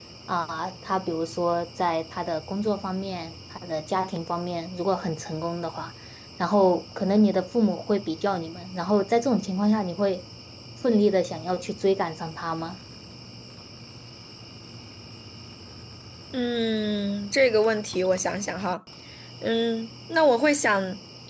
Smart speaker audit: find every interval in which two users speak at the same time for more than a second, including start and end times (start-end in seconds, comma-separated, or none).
none